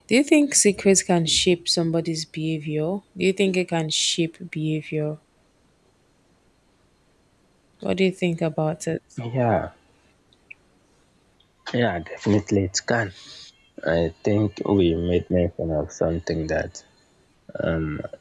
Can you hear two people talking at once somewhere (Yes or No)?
No